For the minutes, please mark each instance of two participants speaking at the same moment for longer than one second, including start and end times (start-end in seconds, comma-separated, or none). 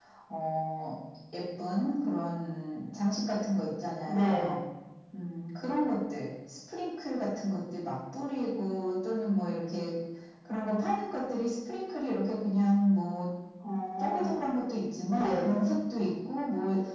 none